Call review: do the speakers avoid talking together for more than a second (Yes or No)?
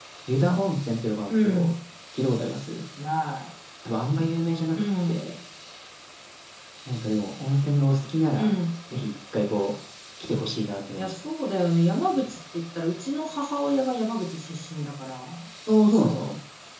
Yes